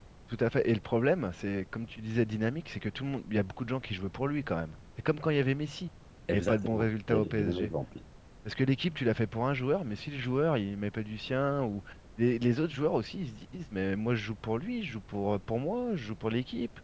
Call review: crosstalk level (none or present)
present